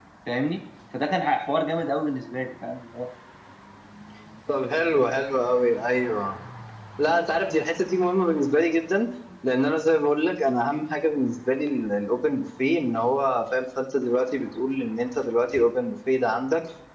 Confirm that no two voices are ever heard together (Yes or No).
Yes